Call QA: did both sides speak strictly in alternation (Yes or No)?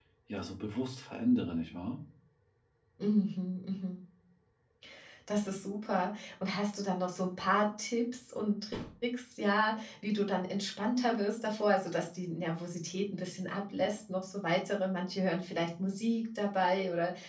Yes